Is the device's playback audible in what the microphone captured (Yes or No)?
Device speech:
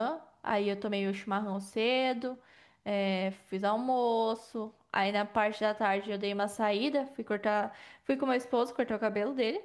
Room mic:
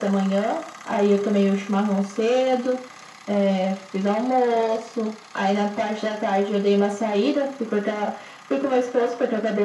Yes